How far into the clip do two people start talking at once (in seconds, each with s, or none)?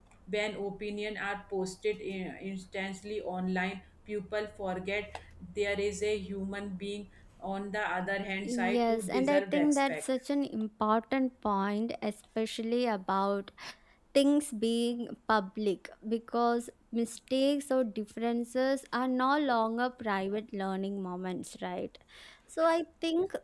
8.7 s